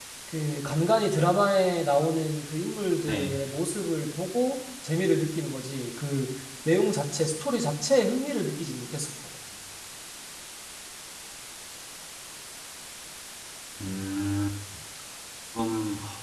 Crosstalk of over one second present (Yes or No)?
No